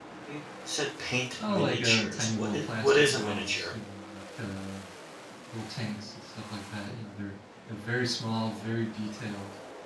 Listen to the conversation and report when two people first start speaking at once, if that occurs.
1 s

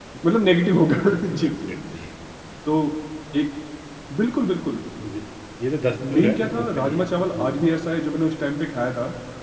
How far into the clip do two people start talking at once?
6 s

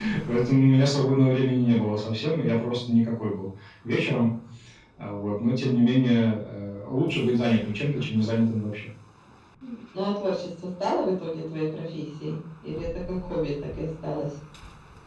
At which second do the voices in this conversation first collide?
none

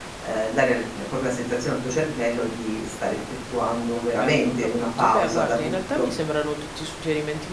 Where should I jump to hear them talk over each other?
4 s

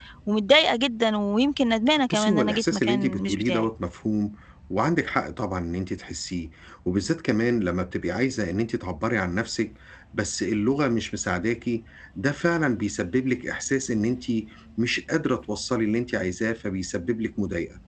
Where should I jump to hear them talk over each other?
2 s

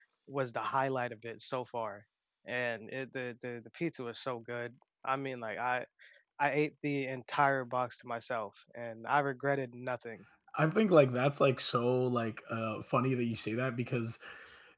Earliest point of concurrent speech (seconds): none

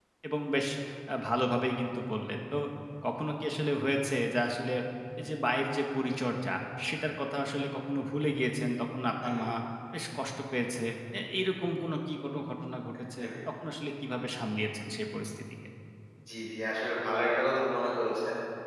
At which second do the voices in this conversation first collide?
none

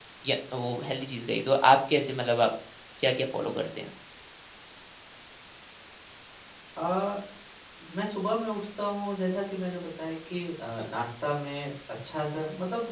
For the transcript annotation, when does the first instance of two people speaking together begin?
none

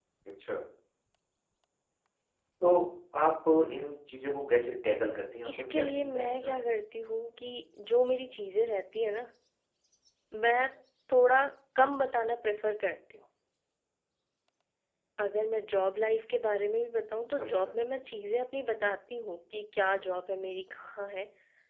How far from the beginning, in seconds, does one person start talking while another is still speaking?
5 s

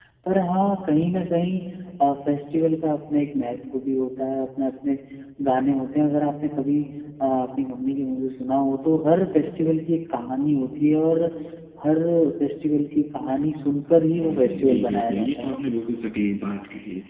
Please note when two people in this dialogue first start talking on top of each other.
14 s

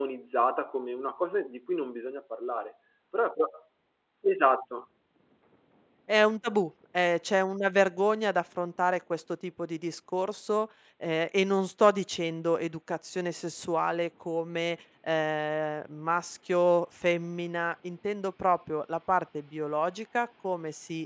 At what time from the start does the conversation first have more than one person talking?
none

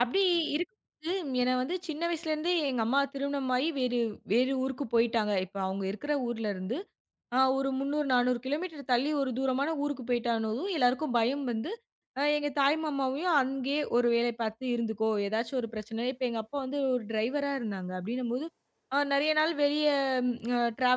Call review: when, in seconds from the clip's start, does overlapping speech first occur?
none

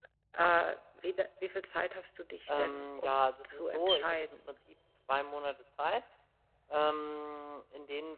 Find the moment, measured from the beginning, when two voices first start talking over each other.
2 s

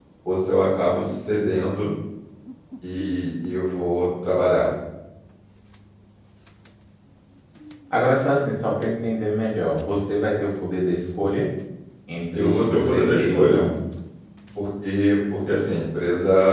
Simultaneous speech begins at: 12 s

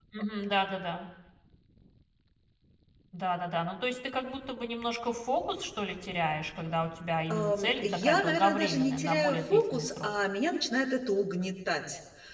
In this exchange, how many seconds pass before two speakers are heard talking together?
7 s

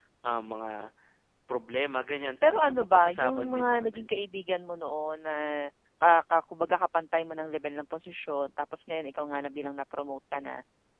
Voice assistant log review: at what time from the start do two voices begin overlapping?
2 s

